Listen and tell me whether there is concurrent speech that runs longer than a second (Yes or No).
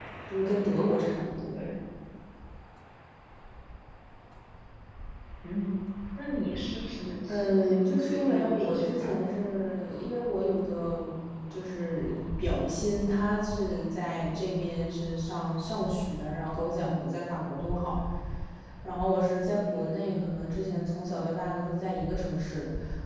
Yes